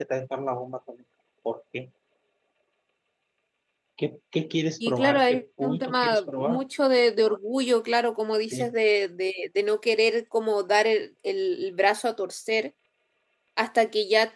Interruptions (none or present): present